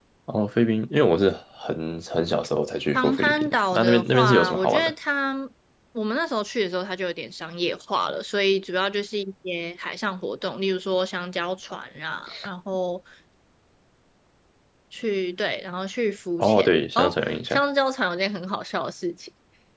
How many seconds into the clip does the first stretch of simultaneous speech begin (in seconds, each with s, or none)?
2.9 s